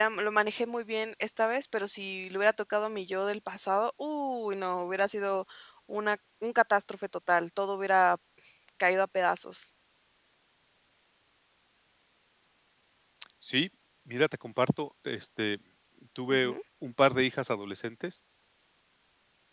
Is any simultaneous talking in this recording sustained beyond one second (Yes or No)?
No